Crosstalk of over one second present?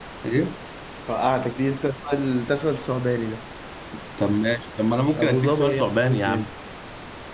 Yes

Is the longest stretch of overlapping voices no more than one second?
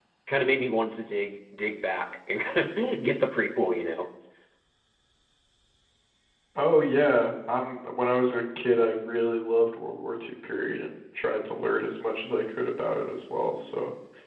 Yes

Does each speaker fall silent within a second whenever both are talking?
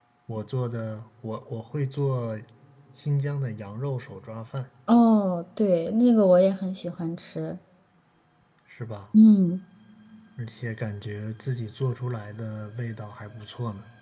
Yes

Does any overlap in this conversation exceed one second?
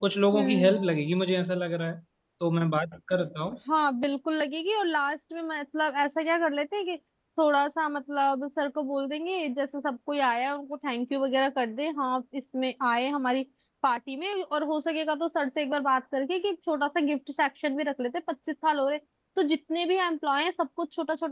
No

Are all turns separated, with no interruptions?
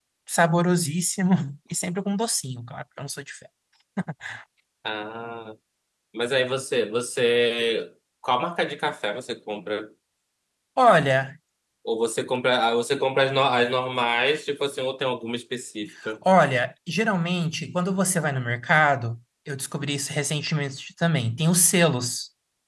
Yes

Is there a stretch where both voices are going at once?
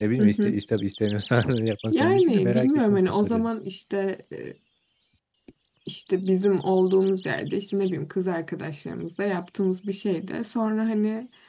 Yes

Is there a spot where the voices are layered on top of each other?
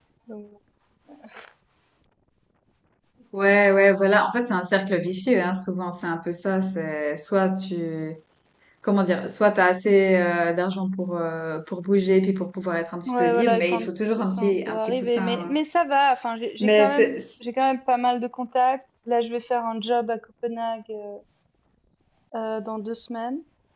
Yes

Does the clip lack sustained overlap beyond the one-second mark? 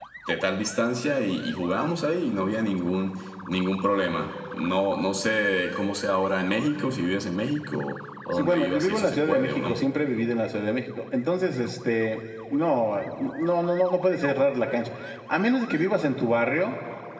No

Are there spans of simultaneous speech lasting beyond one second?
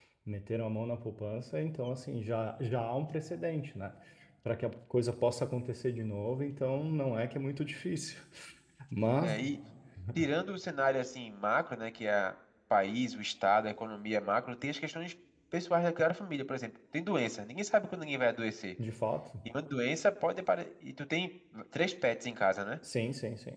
No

